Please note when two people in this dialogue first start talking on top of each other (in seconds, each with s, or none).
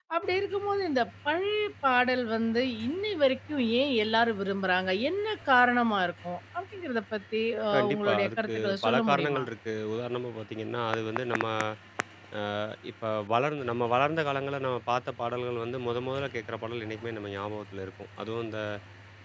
7.7 s